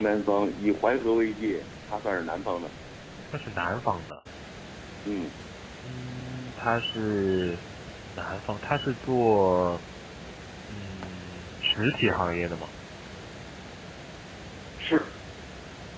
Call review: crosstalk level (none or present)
none